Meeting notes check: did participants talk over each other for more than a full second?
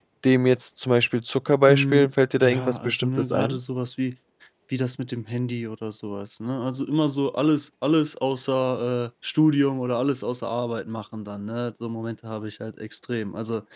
Yes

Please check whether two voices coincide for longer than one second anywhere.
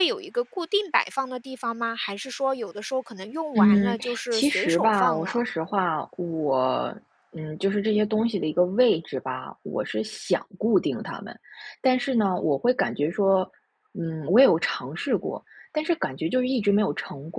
Yes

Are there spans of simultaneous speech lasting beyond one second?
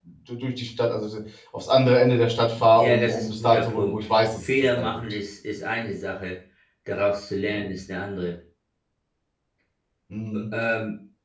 Yes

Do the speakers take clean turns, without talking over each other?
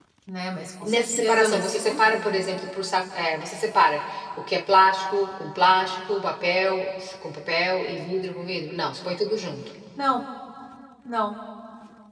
No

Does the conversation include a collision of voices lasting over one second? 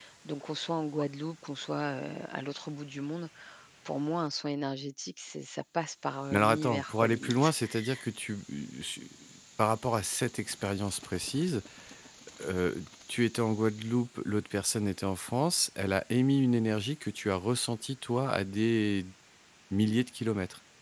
Yes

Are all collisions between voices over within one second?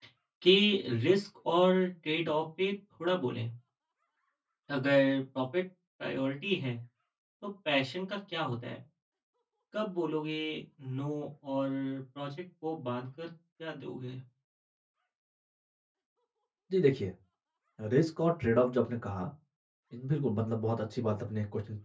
Yes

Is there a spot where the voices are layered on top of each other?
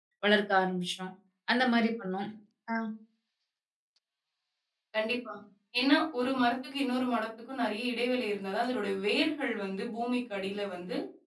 No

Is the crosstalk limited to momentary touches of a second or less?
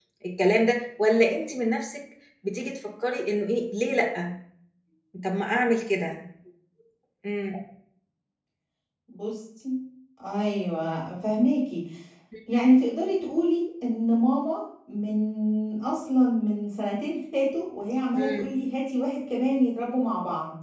Yes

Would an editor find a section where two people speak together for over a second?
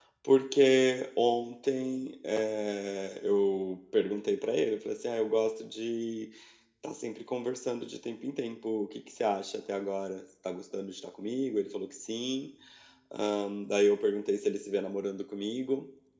No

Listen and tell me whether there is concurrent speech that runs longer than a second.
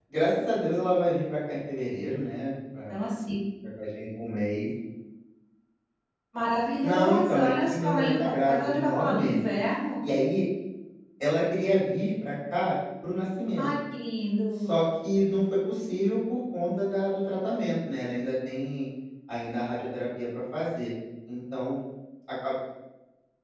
Yes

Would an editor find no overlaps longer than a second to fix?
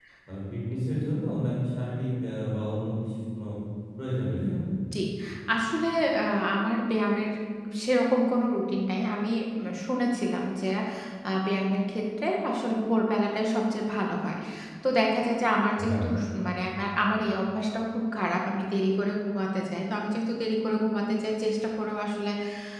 Yes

